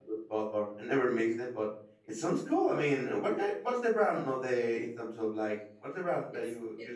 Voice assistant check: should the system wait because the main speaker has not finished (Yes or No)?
No